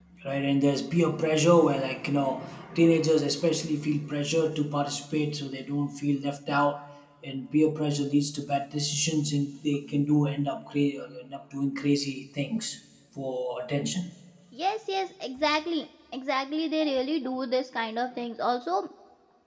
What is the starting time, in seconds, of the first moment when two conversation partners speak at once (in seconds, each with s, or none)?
none